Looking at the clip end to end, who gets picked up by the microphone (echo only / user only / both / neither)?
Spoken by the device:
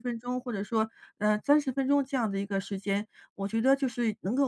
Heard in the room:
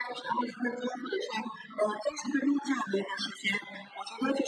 echo only